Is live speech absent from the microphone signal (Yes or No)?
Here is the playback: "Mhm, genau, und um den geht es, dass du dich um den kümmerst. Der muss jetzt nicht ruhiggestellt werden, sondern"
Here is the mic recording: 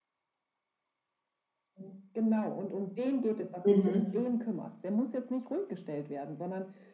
No